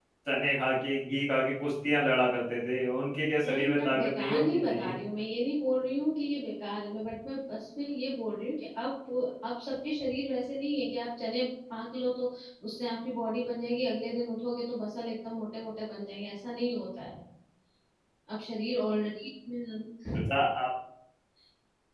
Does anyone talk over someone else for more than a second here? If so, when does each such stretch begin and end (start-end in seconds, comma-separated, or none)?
3.5-4.9